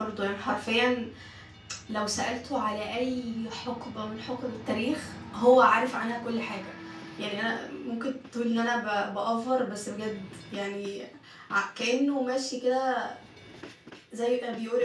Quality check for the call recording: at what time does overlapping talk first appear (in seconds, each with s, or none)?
none